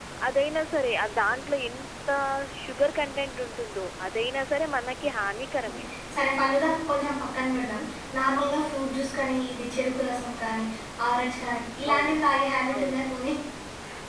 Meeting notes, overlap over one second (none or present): none